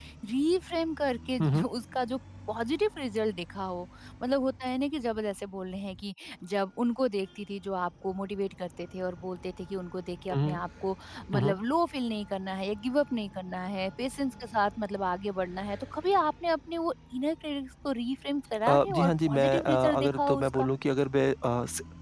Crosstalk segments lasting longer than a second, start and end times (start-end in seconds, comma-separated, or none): 18.7-20.7